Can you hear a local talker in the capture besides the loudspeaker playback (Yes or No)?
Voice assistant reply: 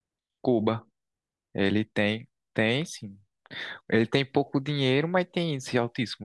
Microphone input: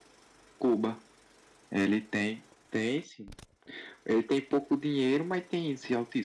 No